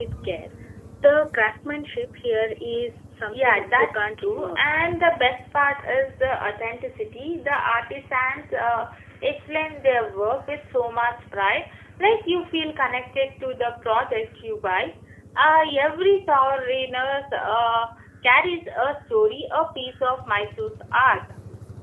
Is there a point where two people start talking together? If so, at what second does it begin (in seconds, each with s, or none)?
3.3 s